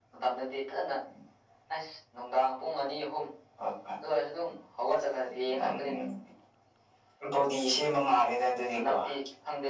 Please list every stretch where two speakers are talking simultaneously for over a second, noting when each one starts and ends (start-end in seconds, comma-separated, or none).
none